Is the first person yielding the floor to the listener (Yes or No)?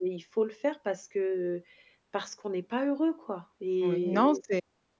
Yes